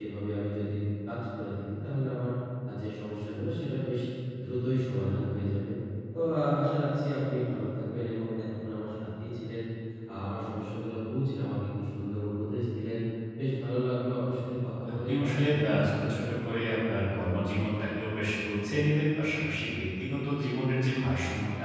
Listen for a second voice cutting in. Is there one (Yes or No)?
Yes